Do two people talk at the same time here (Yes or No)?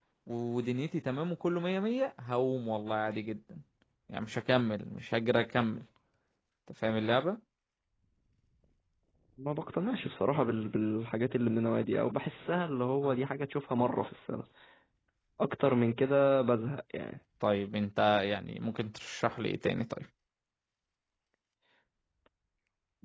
No